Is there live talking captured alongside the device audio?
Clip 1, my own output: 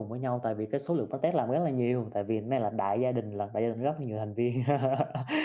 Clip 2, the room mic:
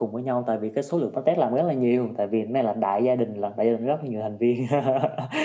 No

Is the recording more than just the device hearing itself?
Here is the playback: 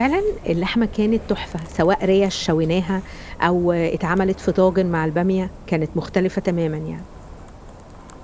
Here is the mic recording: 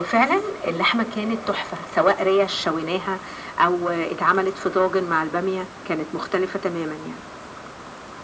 No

